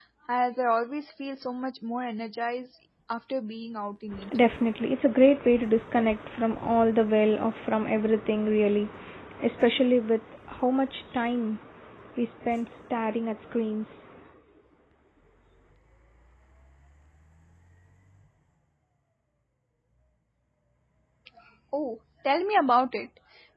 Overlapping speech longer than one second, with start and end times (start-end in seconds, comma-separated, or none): none